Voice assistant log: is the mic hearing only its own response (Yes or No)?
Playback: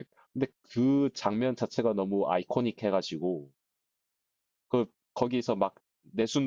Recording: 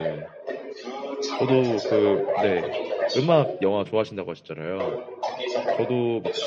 No